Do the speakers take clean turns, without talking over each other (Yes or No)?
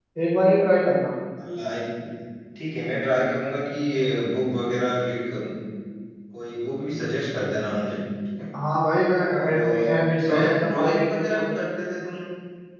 No